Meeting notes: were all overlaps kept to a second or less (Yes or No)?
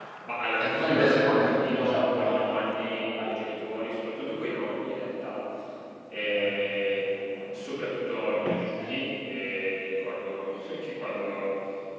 No